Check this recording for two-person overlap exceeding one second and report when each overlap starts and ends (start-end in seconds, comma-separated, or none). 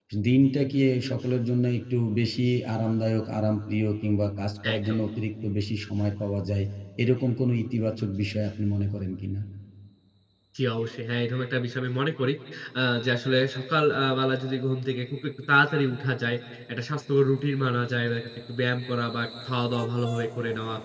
none